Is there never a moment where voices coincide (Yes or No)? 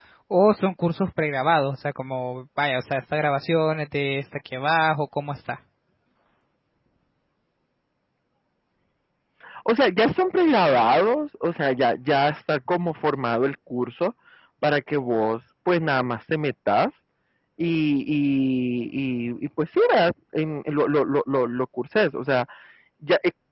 Yes